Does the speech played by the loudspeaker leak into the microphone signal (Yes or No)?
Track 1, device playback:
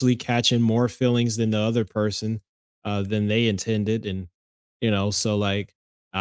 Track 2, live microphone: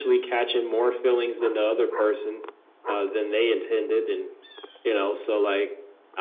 Yes